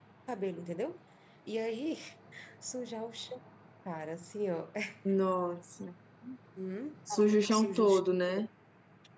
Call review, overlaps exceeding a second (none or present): none